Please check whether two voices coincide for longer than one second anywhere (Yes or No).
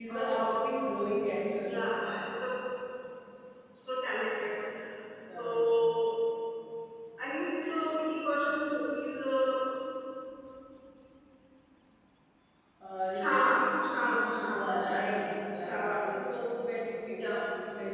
Yes